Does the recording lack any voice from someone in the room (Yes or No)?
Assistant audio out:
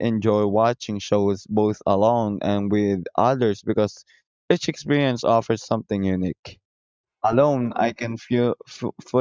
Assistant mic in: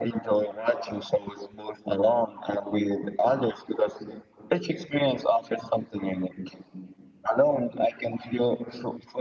Yes